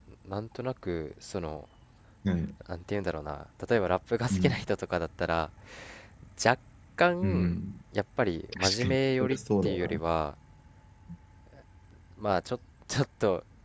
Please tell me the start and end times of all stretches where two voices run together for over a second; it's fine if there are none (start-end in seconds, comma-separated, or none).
8.6-10.0